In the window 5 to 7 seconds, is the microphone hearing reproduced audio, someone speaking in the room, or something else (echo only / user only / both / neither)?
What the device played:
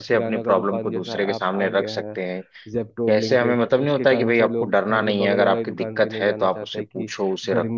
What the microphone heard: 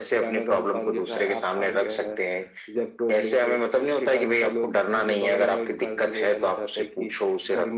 echo only